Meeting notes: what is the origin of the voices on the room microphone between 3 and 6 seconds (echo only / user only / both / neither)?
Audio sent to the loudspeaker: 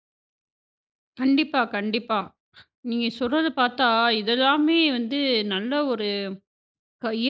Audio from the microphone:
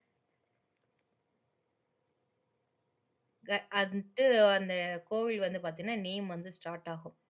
user only